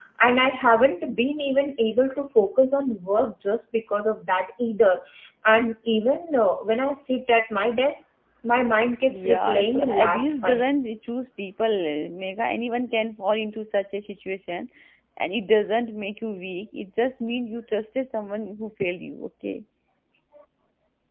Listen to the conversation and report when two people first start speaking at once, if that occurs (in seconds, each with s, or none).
9.1 s